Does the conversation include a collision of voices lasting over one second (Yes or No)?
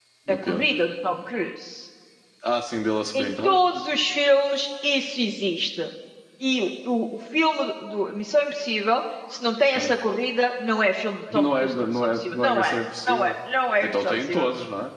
Yes